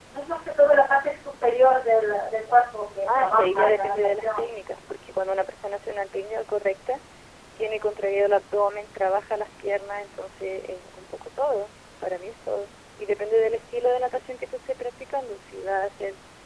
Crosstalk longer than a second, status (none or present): present